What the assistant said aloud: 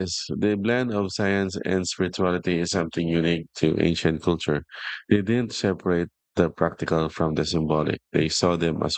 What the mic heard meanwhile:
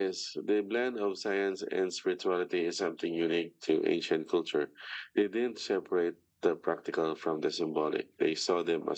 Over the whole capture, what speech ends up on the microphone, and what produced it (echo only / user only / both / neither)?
echo only